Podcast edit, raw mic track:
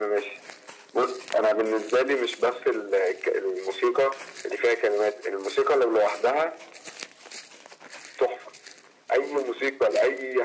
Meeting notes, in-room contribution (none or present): none